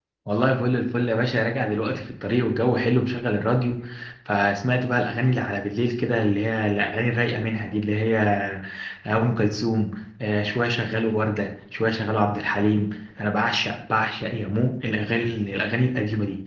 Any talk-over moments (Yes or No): No